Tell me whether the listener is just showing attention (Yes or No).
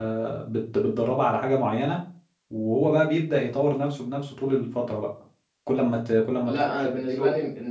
No